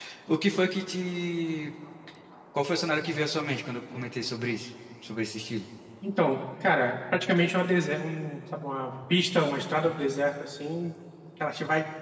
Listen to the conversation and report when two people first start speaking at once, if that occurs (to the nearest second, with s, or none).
none